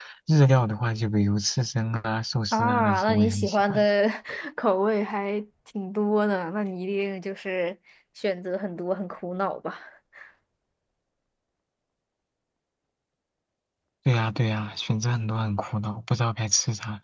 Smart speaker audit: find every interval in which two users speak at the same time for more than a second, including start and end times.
2.5-3.8

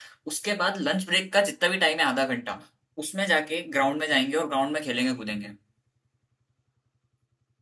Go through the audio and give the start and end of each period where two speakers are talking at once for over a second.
none

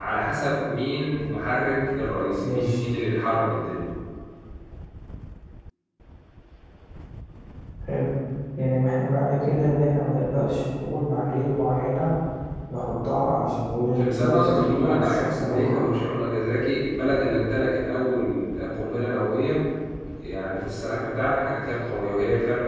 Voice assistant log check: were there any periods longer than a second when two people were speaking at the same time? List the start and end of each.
13.9-15.8

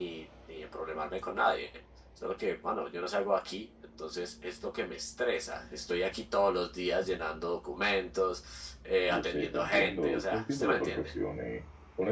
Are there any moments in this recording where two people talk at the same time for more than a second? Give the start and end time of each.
9.1-11.1

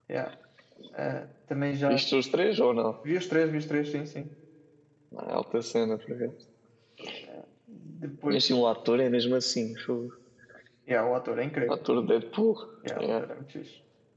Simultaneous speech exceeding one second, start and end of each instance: none

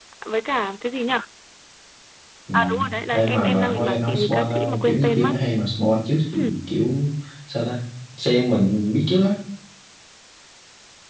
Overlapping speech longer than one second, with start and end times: 3.1-5.3

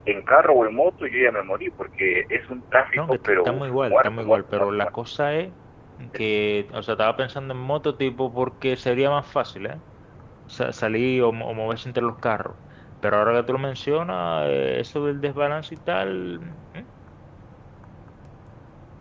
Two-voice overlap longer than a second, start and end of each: 3.0-4.9

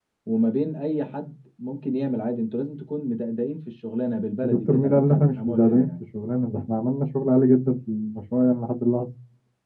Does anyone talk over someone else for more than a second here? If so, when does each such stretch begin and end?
4.4-6.0

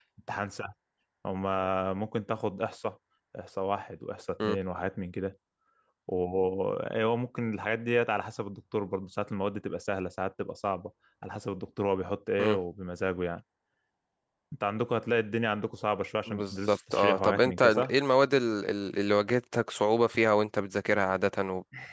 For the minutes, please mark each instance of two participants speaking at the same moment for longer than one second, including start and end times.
16.3-17.9

